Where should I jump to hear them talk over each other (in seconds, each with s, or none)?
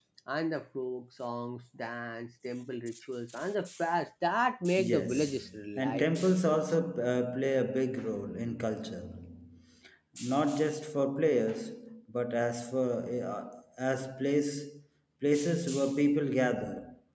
4.7 s